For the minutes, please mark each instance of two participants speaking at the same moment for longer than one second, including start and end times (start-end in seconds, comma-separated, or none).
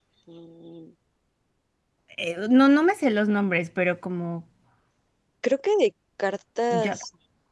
none